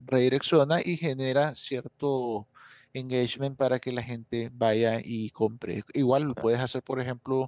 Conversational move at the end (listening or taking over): listening